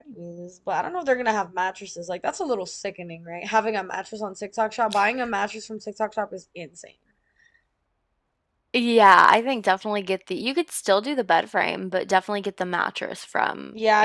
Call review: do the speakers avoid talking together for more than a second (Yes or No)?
Yes